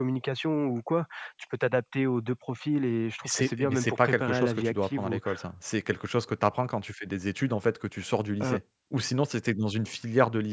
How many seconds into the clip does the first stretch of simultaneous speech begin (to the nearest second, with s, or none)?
3 s